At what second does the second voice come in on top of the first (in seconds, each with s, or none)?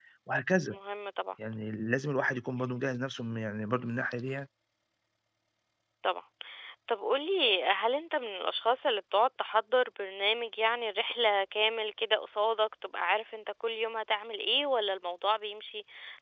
none